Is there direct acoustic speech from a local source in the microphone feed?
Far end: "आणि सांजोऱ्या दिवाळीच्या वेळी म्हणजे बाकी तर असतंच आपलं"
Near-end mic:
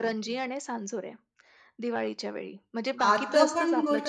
Yes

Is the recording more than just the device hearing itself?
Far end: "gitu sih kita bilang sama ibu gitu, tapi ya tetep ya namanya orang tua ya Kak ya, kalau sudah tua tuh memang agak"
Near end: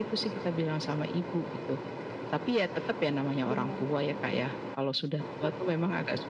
Yes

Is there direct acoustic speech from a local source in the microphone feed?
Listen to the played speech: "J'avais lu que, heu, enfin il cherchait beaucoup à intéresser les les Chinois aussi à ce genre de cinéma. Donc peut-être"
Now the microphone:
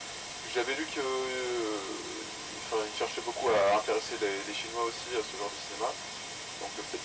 No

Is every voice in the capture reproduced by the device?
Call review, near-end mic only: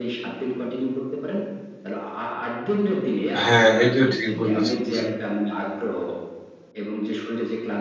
No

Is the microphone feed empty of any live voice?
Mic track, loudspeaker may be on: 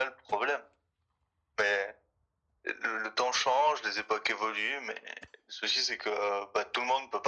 Yes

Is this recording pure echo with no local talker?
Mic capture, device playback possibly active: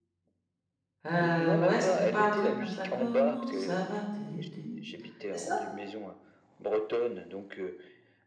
No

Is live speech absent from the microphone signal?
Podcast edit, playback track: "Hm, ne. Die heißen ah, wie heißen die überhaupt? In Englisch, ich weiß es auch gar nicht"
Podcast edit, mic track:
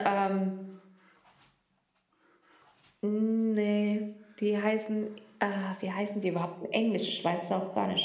Yes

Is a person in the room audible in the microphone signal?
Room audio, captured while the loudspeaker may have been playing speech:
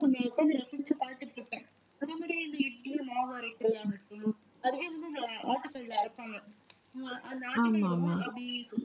Yes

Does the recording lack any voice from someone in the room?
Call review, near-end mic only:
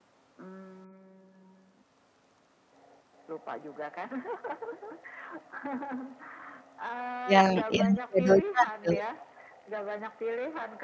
No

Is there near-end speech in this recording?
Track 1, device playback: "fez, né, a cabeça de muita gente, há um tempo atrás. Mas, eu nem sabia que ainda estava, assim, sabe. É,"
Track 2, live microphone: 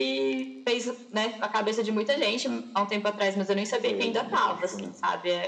Yes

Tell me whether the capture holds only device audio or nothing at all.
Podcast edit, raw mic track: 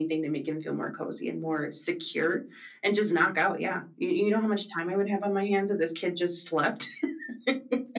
Yes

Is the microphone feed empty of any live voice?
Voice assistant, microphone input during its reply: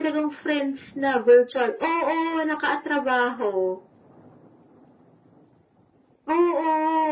Yes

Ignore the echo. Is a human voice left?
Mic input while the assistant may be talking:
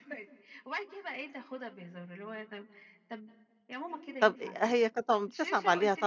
Yes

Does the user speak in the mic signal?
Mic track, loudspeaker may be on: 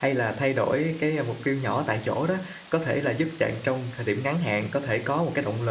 Yes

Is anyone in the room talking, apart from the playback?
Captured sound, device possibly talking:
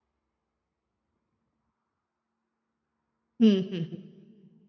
Yes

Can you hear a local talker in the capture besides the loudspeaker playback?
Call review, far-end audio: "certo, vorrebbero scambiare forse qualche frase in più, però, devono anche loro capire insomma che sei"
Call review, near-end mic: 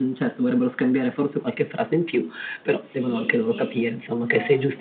Yes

